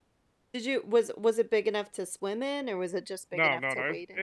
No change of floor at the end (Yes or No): No